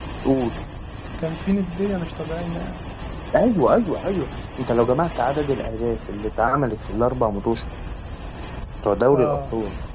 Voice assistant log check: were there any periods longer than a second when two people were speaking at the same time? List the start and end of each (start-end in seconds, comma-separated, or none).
none